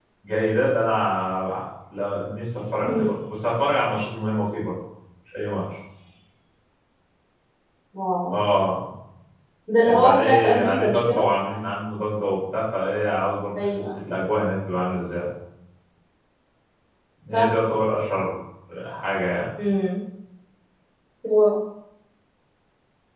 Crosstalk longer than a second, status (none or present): present